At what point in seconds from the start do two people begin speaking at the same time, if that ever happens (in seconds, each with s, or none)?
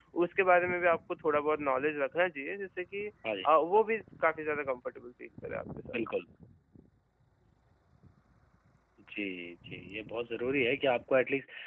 none